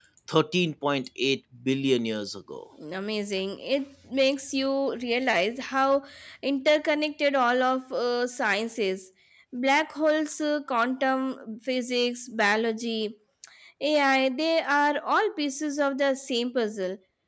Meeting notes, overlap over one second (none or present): none